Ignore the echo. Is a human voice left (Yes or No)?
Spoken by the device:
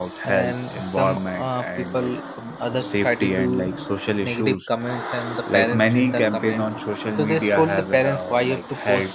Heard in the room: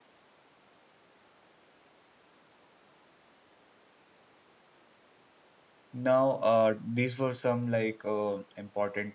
Yes